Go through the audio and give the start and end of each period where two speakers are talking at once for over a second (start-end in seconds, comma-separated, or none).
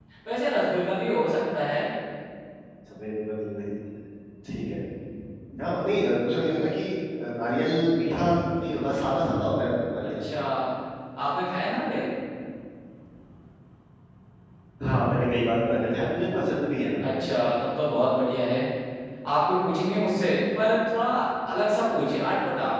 none